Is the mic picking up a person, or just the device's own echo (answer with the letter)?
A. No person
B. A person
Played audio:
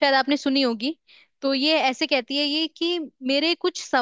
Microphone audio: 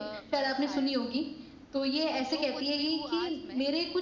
B